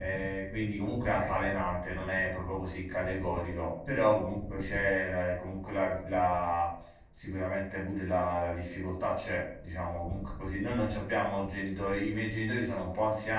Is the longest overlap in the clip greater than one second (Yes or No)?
No